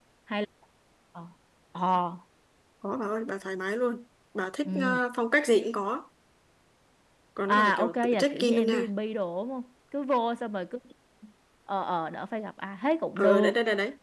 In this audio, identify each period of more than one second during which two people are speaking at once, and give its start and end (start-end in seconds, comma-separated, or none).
7.5-8.9